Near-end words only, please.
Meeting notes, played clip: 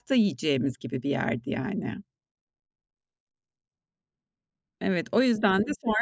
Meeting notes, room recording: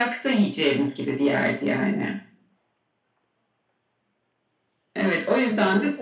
none

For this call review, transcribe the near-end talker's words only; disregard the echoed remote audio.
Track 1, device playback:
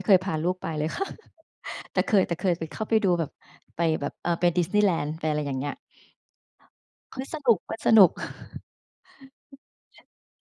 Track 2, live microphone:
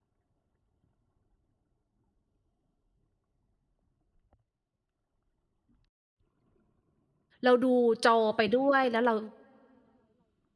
เราดูจอไปด้วย แล้วเรา

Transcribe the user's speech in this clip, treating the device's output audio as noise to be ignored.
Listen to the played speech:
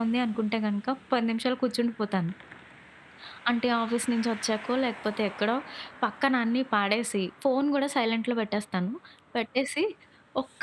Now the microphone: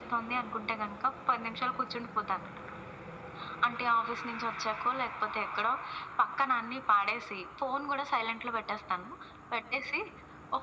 none

